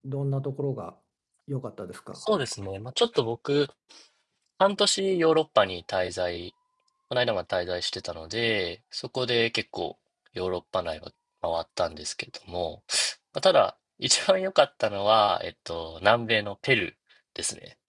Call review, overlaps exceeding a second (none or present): none